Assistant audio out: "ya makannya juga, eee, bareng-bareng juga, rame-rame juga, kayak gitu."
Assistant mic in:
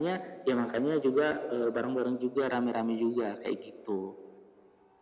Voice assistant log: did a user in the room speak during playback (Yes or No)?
No